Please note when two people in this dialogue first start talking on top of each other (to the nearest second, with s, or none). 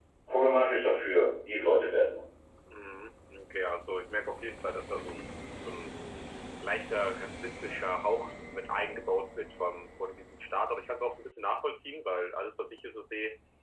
none